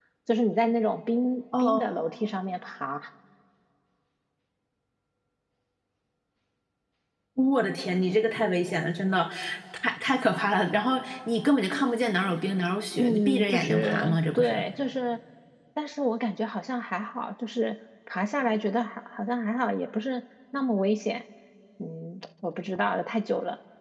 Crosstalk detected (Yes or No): Yes